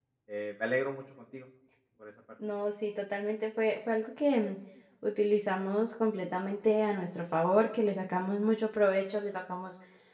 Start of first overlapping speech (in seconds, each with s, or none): none